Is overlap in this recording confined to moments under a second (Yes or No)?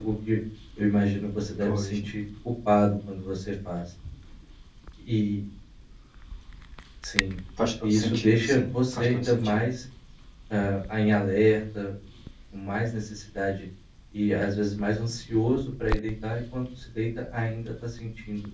No